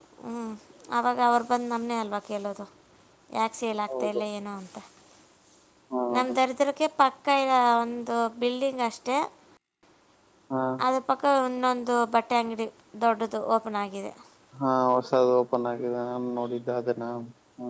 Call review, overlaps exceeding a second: none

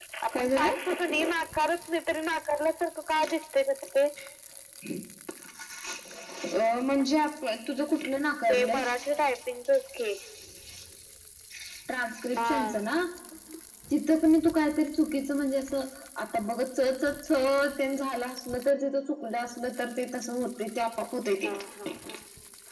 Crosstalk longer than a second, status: none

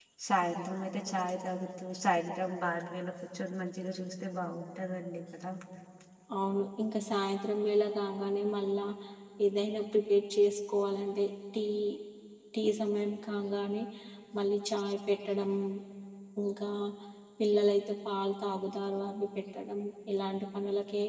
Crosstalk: none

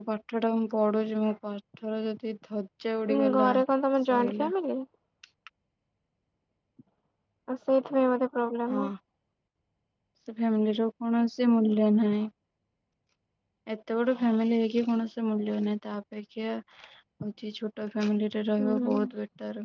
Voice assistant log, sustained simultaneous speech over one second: none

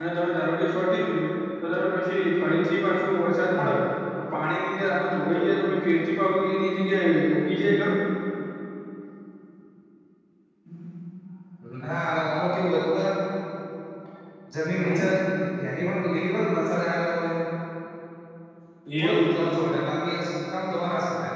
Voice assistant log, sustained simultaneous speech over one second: none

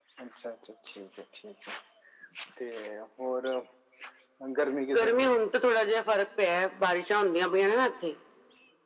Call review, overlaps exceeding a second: none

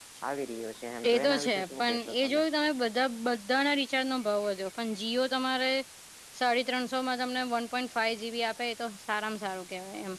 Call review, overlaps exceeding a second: present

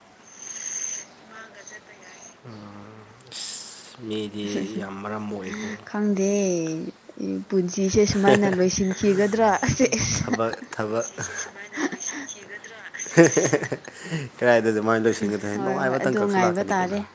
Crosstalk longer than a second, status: present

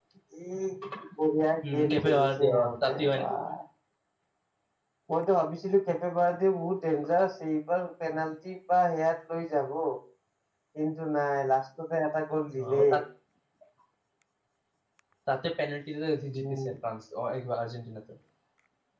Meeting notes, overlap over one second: present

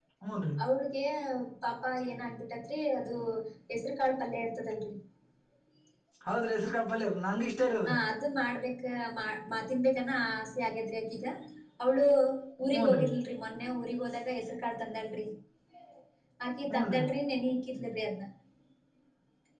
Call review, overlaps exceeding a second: none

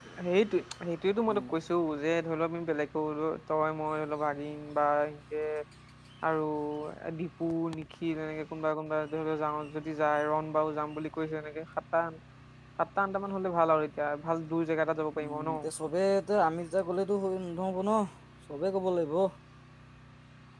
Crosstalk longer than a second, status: none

